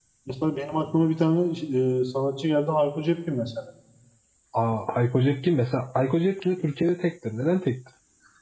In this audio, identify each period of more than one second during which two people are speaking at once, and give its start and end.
none

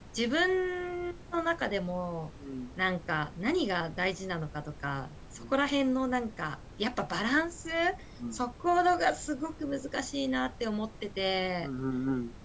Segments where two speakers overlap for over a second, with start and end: none

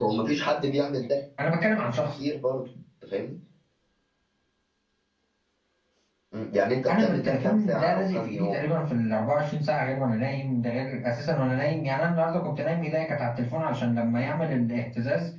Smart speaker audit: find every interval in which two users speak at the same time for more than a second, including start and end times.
6.9-8.5

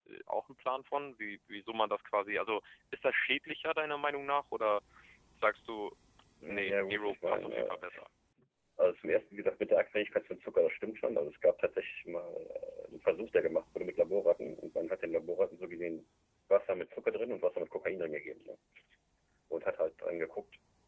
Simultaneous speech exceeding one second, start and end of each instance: 6.5-7.8

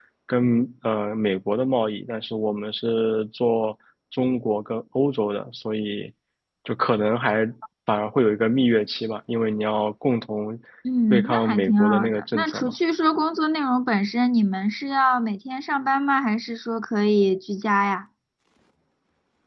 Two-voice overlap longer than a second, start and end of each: 11.1-12.7

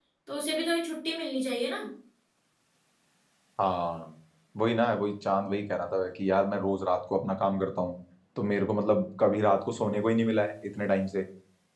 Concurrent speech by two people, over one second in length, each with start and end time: none

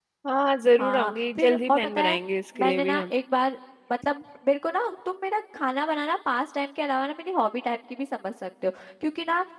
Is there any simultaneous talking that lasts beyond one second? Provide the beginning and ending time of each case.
0.8-2.2

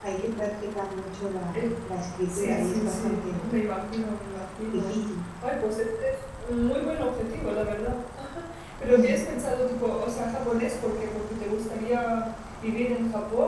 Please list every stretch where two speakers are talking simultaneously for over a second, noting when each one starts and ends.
2.3-3.5

